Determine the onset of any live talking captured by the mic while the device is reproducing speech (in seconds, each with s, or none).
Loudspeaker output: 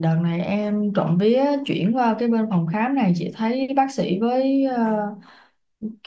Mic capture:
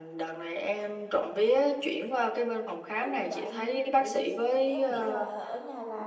3.0 s